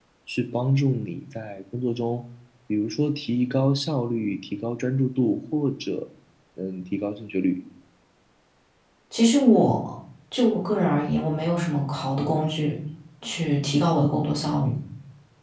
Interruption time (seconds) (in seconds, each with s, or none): none